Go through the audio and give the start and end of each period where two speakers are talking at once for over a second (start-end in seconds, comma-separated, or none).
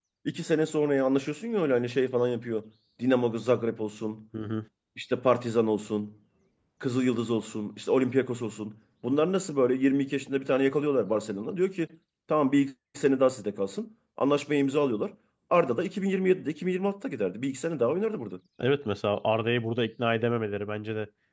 none